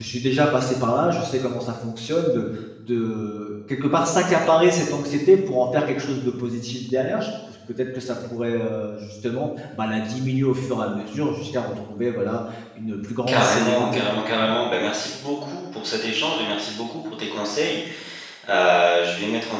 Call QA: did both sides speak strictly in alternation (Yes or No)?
No